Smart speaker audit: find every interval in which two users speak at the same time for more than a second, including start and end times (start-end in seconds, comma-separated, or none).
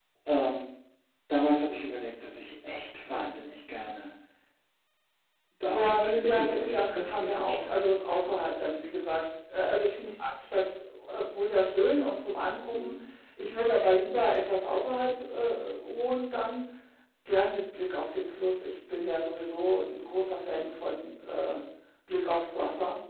5.7-7.8